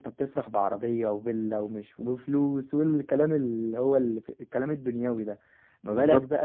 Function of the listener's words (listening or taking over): listening